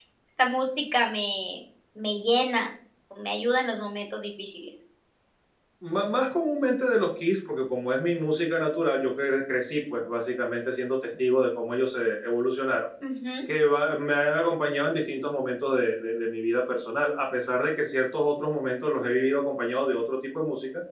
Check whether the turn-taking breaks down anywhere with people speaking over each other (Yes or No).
No